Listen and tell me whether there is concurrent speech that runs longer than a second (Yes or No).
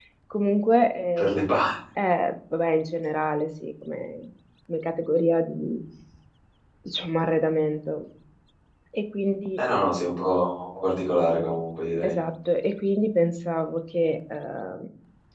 No